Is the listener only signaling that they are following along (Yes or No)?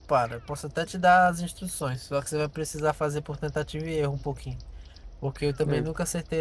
Yes